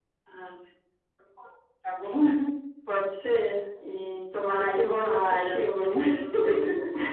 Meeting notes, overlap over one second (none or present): present